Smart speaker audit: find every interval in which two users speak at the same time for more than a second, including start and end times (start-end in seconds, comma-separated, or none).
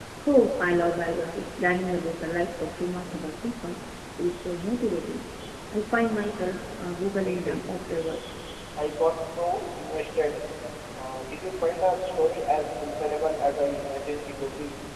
none